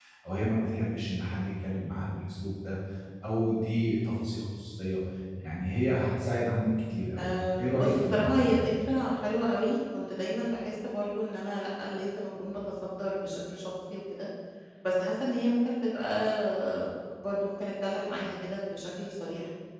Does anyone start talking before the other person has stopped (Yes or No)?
Yes